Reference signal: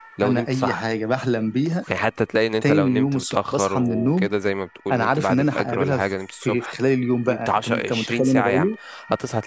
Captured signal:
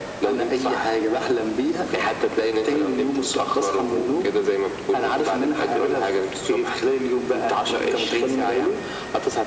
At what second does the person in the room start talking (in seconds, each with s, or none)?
none